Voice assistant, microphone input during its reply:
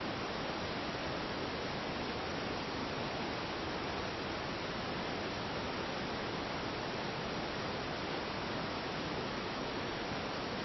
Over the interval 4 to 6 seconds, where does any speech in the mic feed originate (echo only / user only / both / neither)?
neither